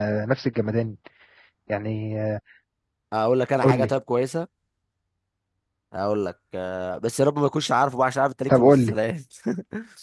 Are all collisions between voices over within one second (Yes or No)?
Yes